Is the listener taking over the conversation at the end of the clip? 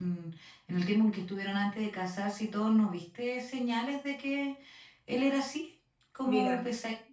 No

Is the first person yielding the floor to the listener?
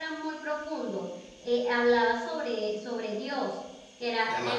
No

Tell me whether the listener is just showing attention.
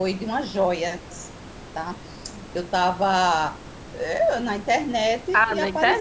No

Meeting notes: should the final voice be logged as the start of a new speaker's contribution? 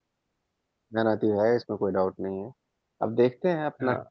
No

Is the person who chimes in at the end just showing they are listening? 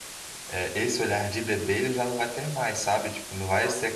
Yes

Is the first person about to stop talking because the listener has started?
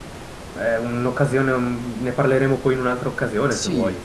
Yes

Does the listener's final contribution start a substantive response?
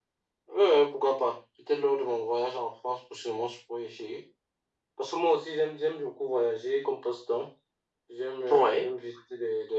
No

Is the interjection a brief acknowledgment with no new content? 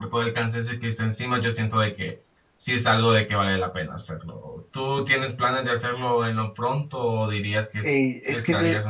No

